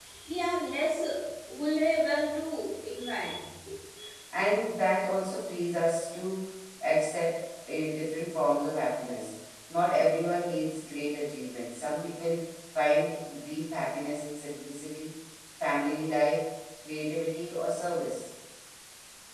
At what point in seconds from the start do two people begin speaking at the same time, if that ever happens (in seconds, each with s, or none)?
none